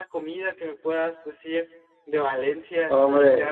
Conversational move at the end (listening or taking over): taking over